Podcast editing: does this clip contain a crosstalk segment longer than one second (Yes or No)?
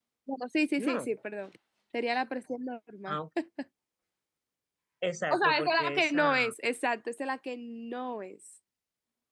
Yes